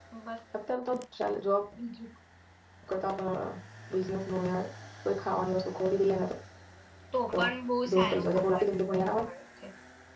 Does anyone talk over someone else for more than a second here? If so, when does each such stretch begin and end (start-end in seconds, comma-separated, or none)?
7.9-9.2